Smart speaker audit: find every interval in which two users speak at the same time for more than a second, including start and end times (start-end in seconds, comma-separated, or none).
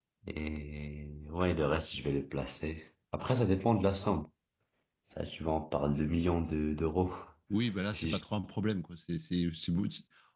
none